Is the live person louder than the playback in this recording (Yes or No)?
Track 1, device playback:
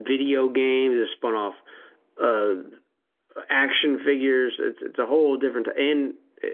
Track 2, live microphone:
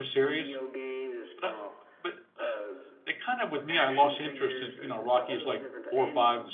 Yes